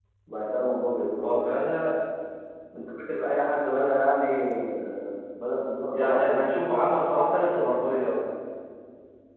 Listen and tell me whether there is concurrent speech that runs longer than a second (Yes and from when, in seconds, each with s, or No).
No